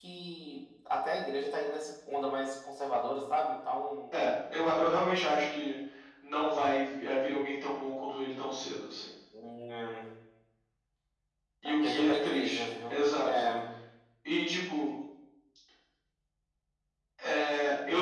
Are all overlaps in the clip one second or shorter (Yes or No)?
No